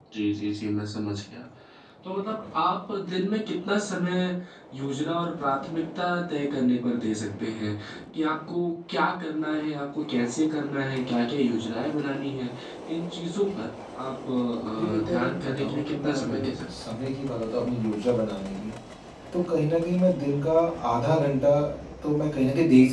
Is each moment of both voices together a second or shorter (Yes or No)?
No